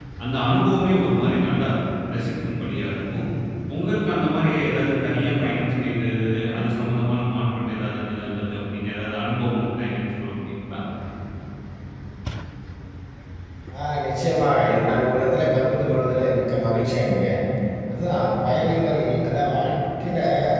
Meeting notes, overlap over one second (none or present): none